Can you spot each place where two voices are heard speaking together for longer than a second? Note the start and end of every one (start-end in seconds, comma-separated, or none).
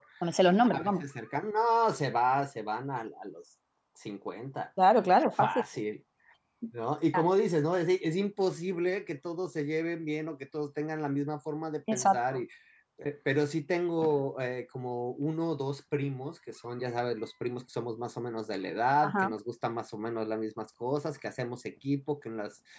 none